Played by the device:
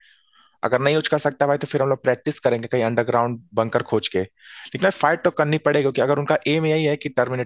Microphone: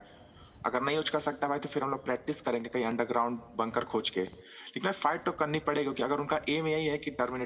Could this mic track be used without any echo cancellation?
No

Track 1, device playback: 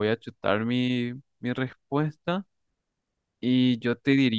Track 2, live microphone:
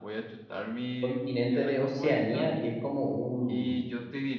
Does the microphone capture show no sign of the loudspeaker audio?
No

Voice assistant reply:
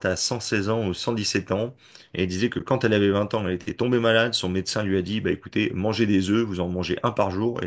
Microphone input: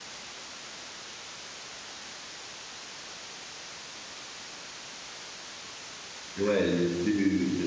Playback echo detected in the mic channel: No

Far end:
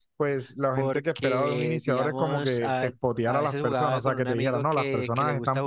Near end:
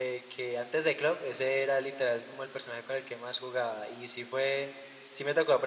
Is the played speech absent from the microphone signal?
Yes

